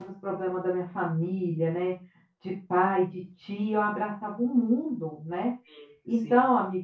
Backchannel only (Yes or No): Yes